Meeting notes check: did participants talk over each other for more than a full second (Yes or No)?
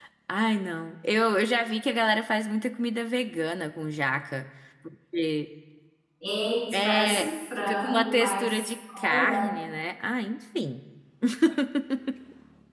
Yes